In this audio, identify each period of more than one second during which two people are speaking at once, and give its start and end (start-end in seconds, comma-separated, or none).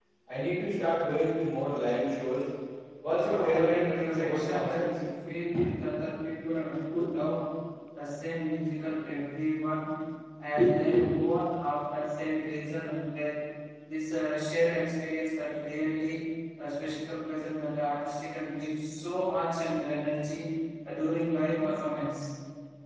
3.3-4.9